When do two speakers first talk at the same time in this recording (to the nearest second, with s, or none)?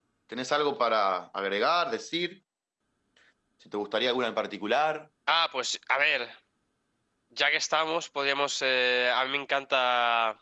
none